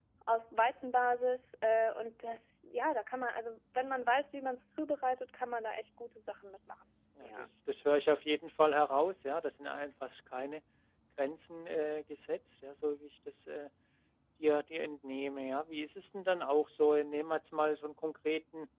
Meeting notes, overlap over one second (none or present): none